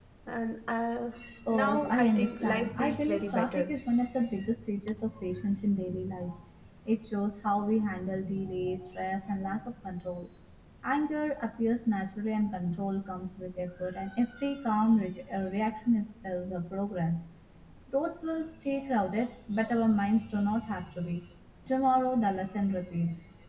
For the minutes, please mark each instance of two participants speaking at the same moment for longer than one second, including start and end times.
1.5-3.7

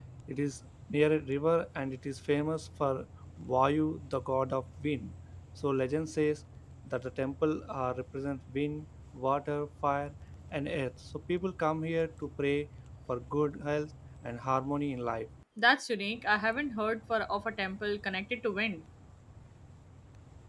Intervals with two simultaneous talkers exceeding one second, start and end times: none

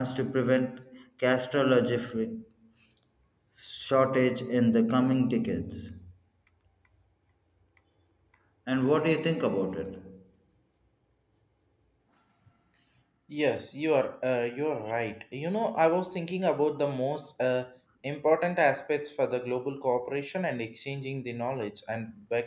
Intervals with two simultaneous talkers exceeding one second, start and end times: none

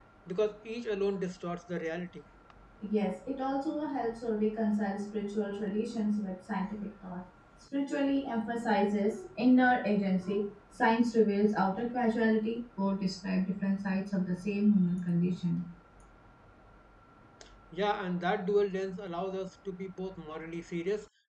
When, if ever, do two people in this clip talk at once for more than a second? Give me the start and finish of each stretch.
none

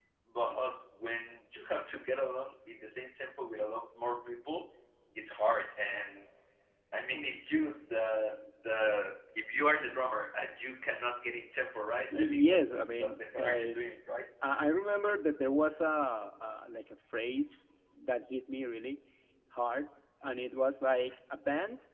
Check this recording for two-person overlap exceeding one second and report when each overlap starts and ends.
12.0-13.8

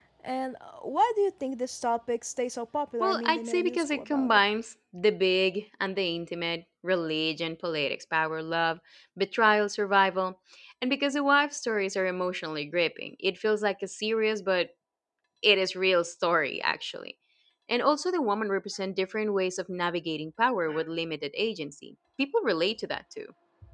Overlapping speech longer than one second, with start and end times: 3.0-4.4

